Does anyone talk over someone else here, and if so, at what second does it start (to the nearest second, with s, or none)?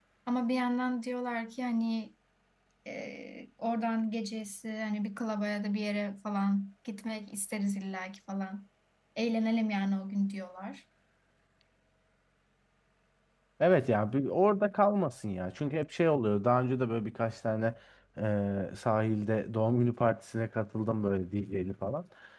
none